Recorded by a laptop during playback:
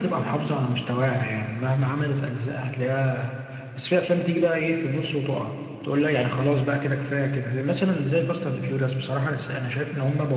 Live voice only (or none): none